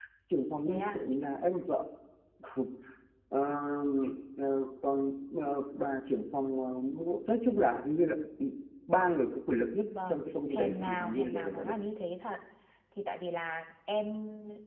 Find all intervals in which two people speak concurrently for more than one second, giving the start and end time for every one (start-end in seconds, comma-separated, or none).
10.1-11.7